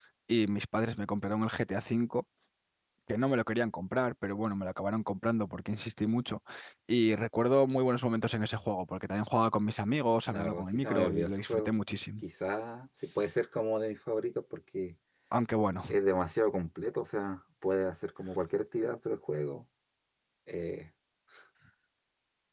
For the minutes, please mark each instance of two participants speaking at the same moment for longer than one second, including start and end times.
10.3-11.7

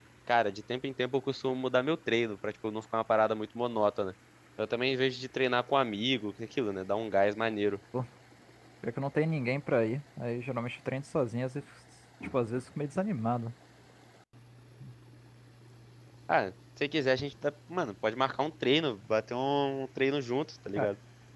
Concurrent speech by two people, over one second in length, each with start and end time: none

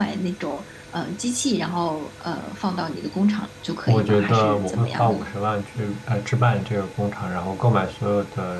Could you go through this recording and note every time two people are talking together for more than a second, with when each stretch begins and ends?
3.9-5.3

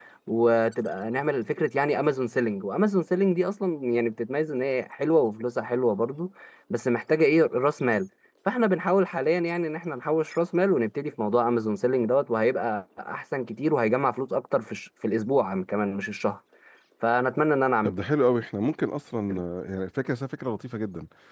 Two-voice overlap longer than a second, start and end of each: none

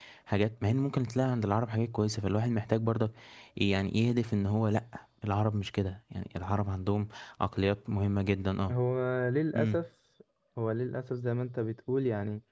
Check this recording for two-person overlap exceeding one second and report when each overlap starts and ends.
none

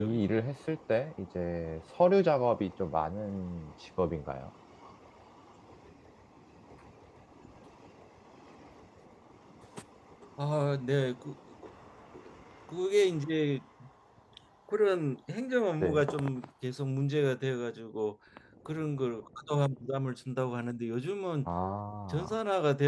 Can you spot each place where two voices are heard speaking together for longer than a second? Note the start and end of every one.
none

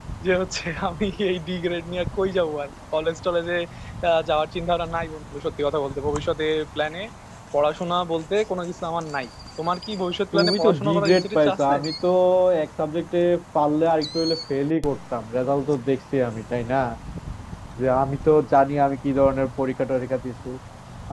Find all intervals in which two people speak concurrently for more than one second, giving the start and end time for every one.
10.3-11.7

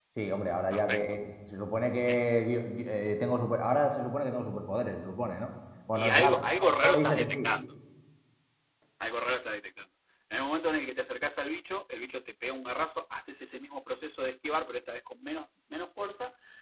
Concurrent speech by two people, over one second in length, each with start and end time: 5.9-7.5

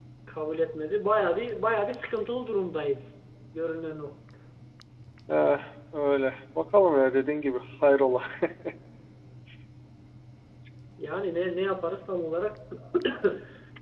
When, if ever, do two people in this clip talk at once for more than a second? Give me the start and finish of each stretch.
none

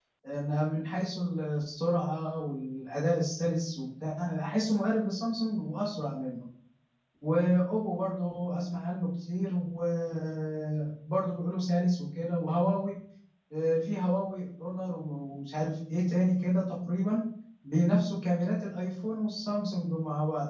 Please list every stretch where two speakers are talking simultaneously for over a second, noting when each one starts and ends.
none

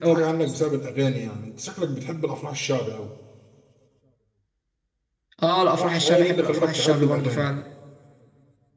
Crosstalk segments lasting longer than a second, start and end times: 5.8-7.5

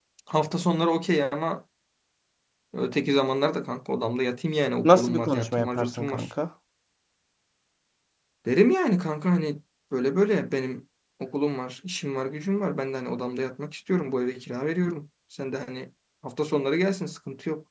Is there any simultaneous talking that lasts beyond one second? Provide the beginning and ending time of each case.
4.8-6.2

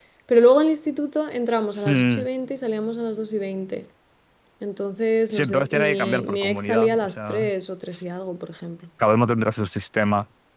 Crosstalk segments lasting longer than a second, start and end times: 5.3-7.5

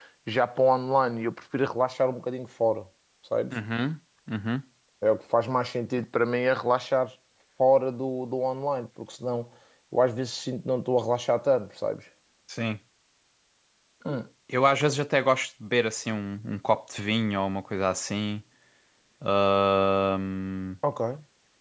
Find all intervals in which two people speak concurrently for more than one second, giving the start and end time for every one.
none

